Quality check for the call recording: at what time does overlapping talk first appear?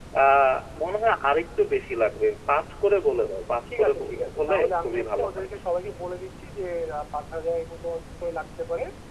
4 s

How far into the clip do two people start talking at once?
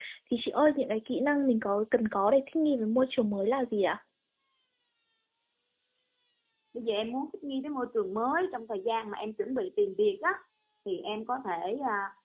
none

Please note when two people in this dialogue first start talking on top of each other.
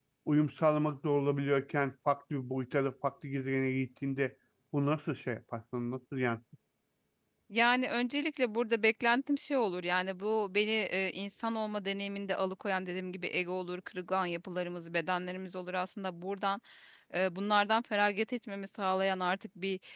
none

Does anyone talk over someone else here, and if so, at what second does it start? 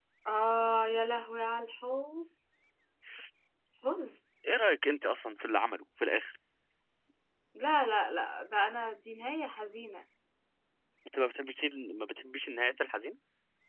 none

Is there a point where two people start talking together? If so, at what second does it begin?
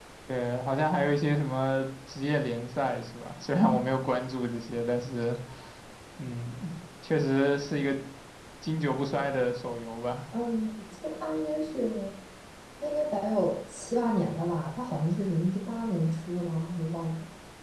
none

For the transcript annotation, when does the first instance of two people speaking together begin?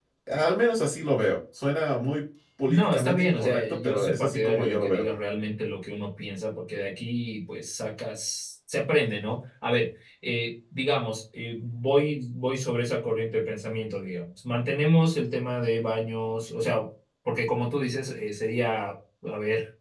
3 s

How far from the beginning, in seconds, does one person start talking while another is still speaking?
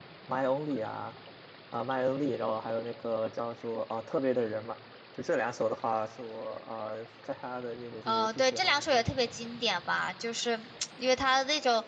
8 s

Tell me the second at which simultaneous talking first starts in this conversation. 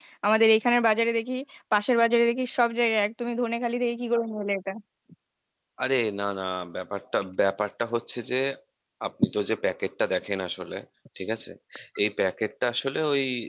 none

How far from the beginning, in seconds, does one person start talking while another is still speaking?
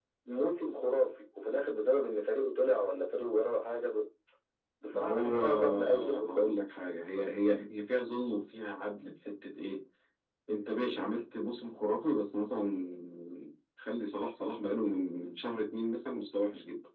5 s

